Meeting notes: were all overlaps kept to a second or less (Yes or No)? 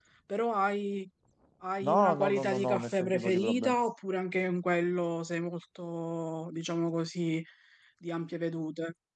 No